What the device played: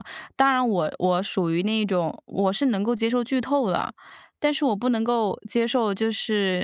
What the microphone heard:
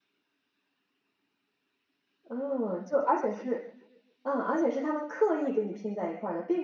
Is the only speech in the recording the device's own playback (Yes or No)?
No